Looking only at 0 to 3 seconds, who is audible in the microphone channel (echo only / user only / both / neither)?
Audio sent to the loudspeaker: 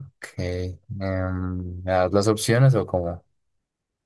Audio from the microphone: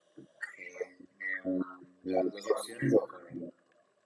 echo only